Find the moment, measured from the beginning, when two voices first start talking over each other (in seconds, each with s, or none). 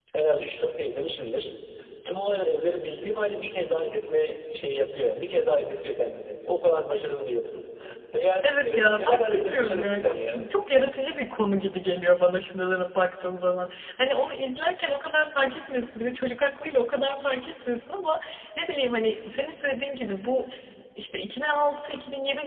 8.4 s